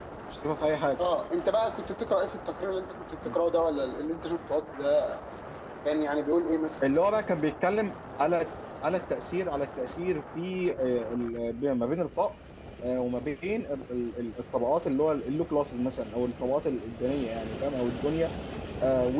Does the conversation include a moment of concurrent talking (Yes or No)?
No